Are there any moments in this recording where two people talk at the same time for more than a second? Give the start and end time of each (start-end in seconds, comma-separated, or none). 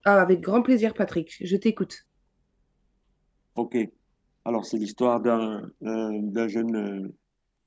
none